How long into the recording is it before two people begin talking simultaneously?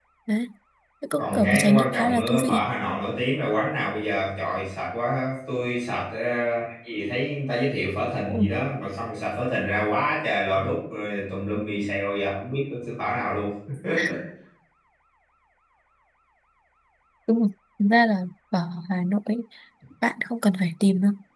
1.2 s

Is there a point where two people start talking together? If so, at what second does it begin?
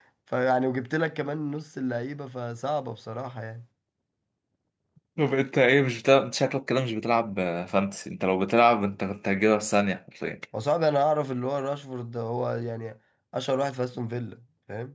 none

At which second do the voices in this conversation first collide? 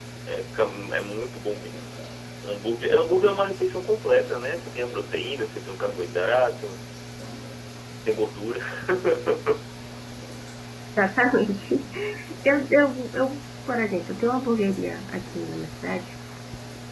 none

